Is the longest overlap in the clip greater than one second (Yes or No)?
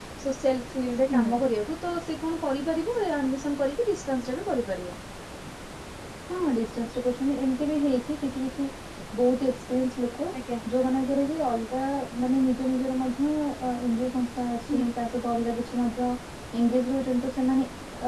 No